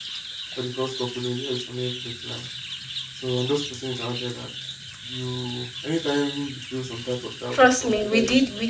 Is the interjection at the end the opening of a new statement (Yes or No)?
Yes